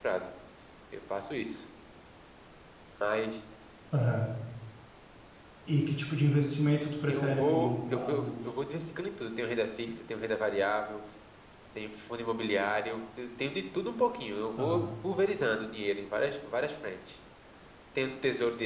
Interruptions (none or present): present